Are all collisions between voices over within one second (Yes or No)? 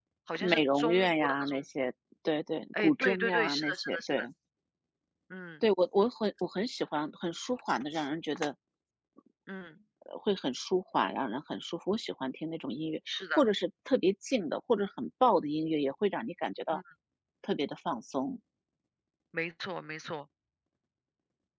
No